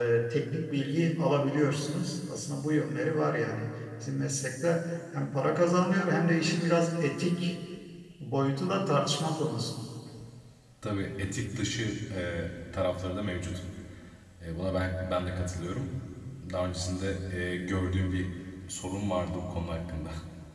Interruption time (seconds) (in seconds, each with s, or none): none